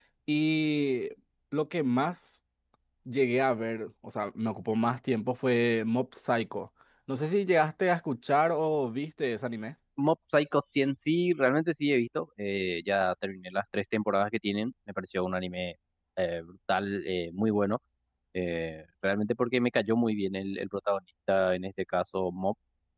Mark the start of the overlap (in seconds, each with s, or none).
none